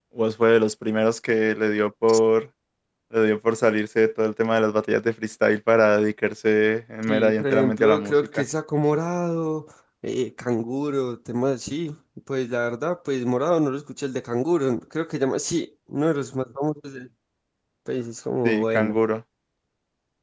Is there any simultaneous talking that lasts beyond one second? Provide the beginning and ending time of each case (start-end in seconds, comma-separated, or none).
7.1-8.4